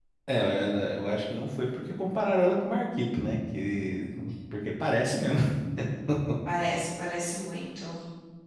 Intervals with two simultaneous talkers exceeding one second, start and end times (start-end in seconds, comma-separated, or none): none